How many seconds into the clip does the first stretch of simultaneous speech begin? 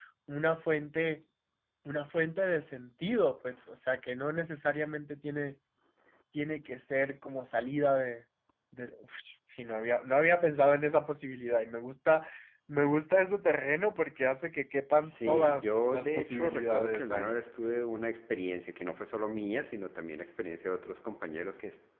15.0 s

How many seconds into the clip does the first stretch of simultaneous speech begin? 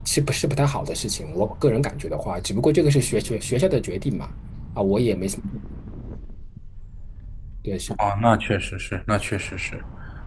none

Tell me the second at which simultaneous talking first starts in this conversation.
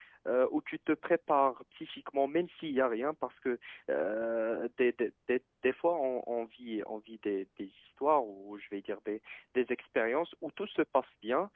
none

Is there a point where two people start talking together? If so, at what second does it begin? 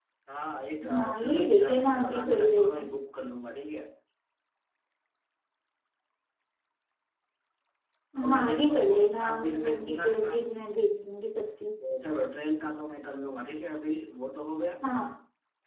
0.9 s

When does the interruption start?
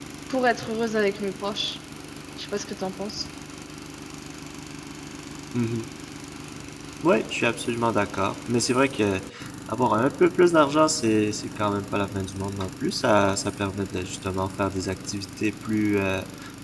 none

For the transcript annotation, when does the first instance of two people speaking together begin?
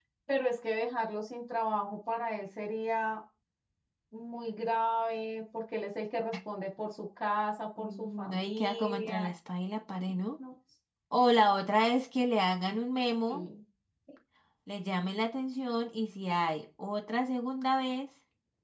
7.8 s

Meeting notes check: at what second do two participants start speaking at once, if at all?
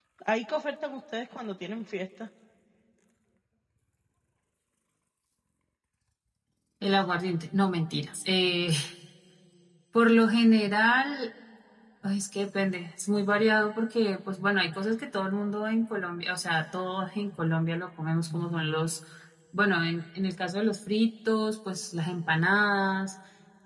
none

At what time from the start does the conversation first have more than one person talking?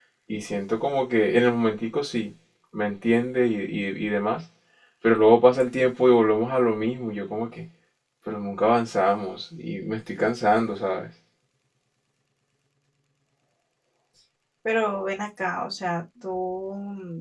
none

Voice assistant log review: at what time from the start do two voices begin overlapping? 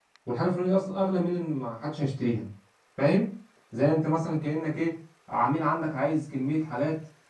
none

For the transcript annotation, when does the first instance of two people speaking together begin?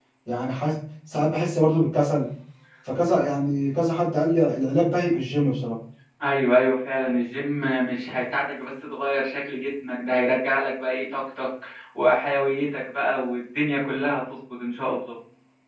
none

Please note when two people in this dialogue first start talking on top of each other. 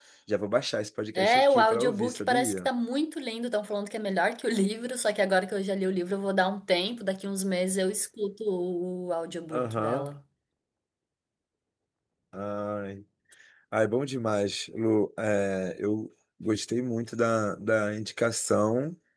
1.1 s

